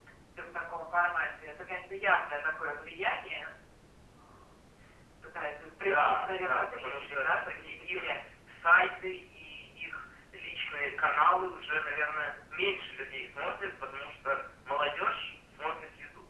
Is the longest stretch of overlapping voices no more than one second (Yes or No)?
No